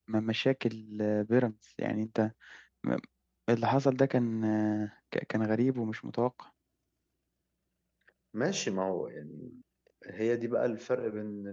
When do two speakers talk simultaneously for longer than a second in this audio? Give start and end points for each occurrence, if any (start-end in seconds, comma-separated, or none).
none